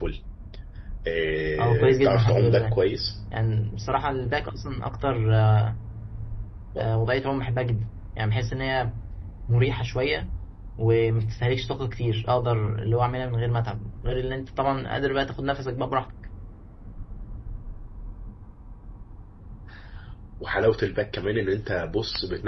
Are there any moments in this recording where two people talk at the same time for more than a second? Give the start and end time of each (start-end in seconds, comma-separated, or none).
1.6-2.8